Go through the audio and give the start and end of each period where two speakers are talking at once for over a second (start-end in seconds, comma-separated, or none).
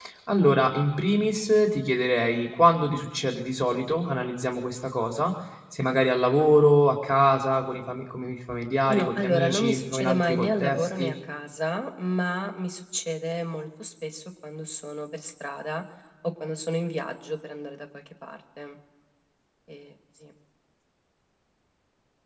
8.9-11.1